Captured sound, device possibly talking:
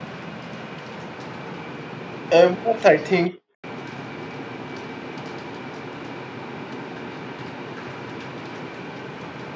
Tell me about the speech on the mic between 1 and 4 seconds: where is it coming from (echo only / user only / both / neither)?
user only